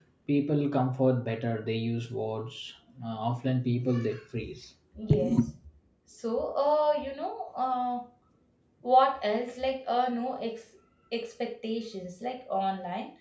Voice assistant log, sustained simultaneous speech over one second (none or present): none